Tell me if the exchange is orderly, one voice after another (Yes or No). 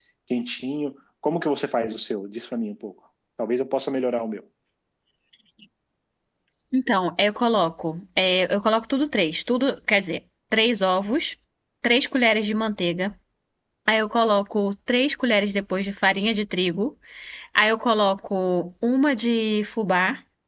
Yes